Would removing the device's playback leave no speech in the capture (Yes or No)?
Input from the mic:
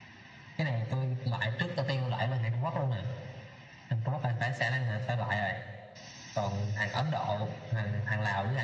Yes